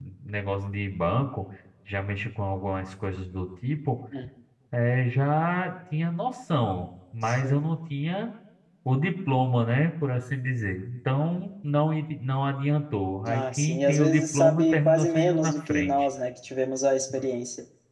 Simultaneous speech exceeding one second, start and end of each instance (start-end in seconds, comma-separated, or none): 13.3-15.9